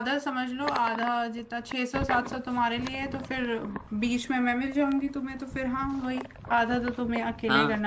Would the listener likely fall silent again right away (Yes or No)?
No